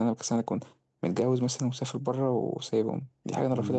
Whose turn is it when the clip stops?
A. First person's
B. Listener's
B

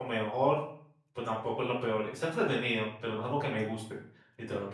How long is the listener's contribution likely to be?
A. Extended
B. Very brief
A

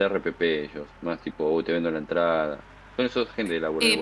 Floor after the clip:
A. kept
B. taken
B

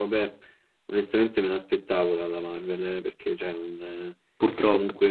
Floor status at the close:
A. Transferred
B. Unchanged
B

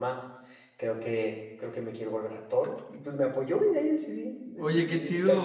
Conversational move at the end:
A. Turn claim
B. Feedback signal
A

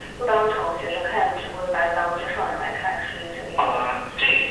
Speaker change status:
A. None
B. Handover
B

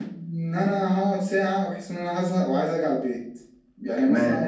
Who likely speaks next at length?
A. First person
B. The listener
A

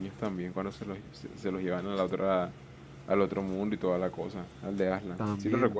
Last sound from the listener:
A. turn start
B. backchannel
A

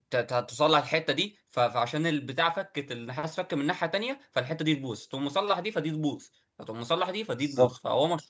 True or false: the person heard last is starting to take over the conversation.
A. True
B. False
B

